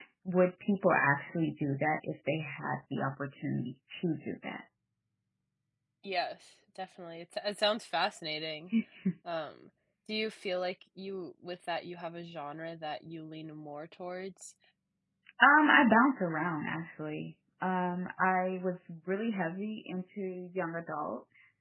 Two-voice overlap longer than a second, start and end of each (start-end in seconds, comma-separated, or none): none